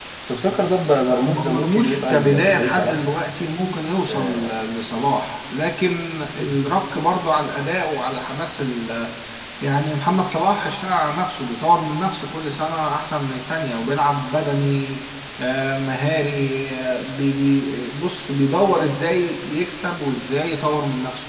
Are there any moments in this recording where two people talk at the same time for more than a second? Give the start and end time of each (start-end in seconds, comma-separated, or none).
1.2-3.0